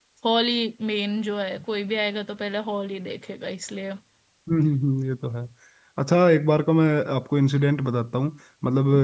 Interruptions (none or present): none